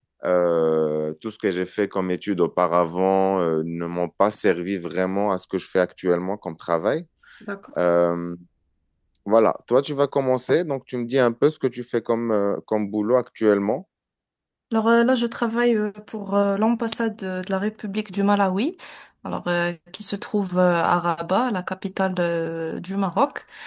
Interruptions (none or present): none